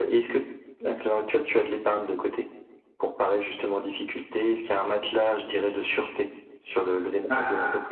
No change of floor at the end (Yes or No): No